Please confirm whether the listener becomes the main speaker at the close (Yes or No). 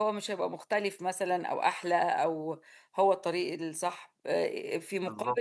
No